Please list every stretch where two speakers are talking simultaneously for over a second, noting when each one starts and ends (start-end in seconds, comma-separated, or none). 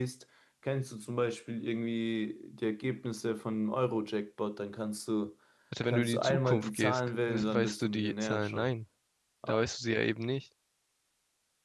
5.9-8.7